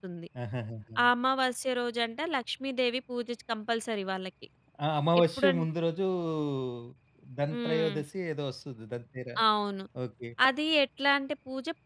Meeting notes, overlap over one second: none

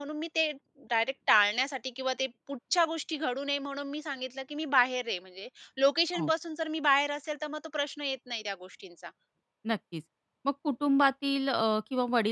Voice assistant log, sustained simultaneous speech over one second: none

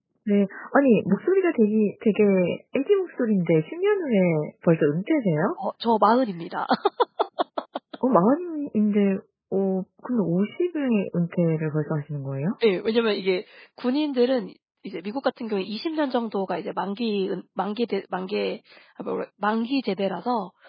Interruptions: none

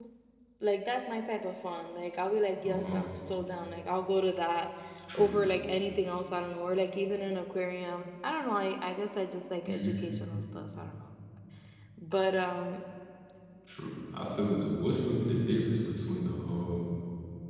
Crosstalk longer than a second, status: none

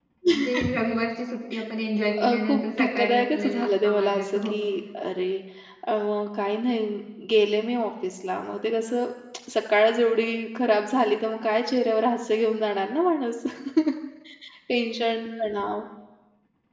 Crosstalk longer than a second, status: present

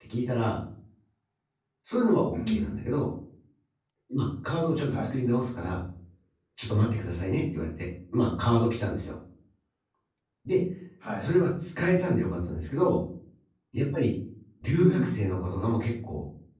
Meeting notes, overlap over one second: none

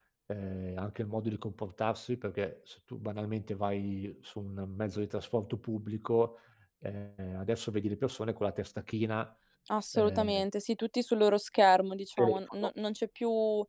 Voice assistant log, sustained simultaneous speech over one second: none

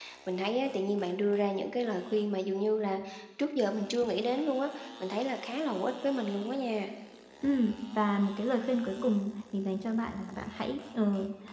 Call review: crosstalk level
none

